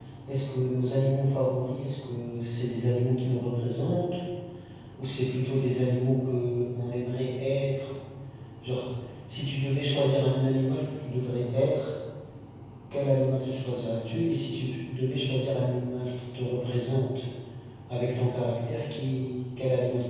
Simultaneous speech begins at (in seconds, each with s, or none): none